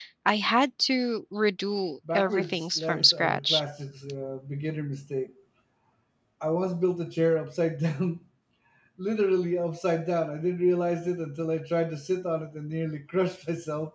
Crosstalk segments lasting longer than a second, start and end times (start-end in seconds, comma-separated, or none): 2.1-3.6